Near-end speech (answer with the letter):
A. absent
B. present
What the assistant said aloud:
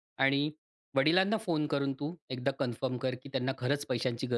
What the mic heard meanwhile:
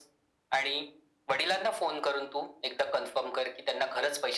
A